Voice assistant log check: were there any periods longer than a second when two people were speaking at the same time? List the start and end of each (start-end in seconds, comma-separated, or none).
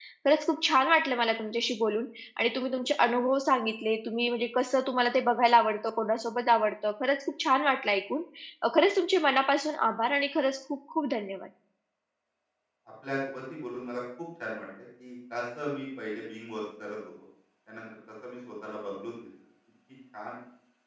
none